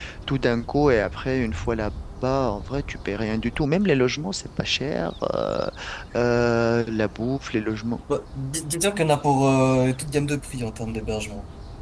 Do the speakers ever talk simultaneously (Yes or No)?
No